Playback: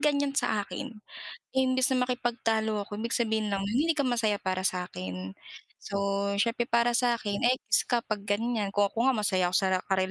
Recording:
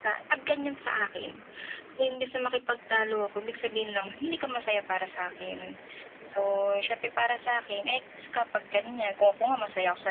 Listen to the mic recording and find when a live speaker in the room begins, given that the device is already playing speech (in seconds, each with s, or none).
none